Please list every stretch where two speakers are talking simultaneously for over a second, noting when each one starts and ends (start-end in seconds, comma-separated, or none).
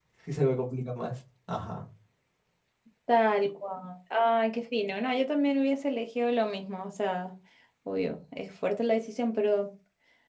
none